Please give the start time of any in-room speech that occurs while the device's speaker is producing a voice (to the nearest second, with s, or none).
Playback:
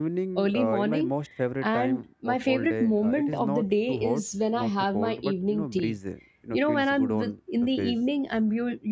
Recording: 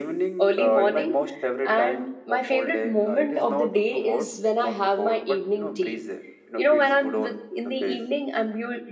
none